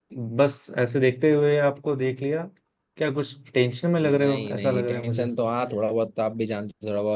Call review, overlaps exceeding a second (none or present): present